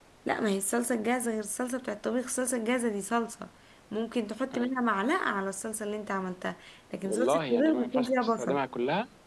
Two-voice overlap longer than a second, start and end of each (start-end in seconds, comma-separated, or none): 7.0-8.6